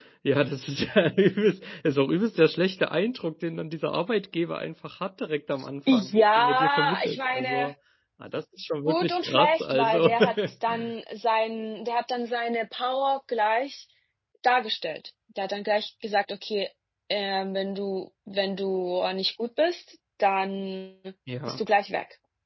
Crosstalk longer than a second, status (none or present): present